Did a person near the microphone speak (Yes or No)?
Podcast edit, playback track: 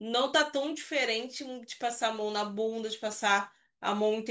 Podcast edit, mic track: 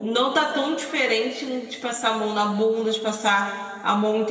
No